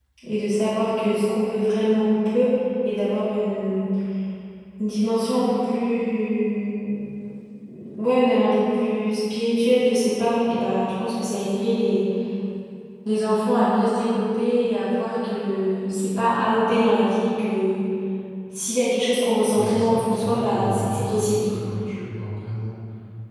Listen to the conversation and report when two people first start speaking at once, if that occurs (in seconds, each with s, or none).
19.5 s